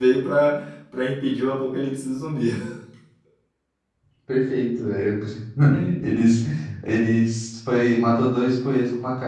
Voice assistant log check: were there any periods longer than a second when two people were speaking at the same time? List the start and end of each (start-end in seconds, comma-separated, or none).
none